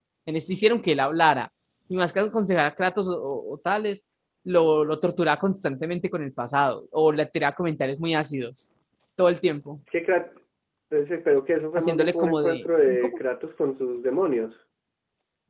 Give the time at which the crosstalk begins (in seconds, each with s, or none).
11.8 s